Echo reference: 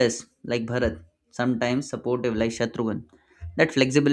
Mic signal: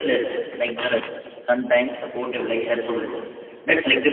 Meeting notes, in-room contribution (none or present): none